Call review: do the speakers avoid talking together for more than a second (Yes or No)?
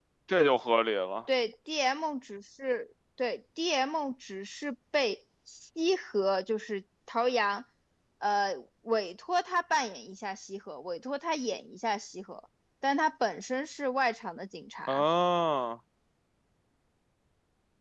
Yes